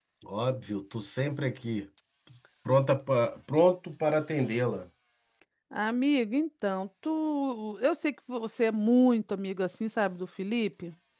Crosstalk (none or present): none